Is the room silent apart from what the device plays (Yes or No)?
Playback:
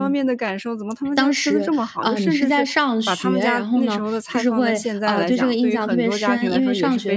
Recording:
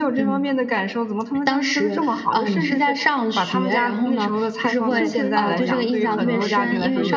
No